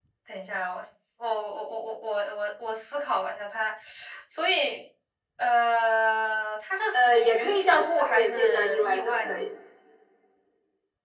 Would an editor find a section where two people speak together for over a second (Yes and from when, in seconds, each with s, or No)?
Yes, from 6.9 s